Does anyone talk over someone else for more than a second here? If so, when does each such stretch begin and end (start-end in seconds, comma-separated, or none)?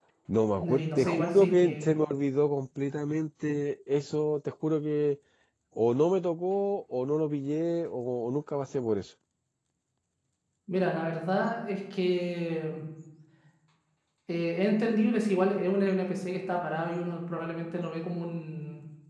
0.6-2.0